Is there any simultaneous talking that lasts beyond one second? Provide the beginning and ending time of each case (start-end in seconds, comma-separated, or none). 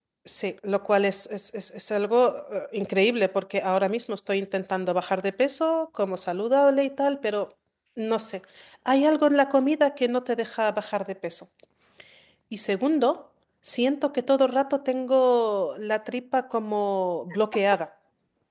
none